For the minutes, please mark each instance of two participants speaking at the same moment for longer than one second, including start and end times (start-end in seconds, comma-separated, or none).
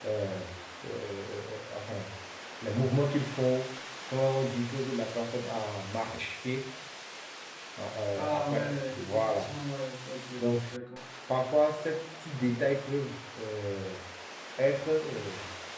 8.2-9.5